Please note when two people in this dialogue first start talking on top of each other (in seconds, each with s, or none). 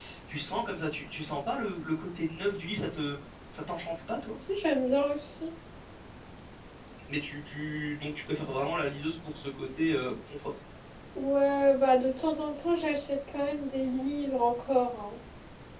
none